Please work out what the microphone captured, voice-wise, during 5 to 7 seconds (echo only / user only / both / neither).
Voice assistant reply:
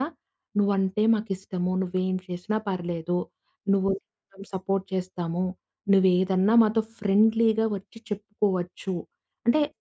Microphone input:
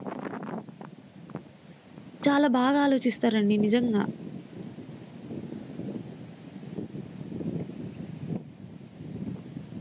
neither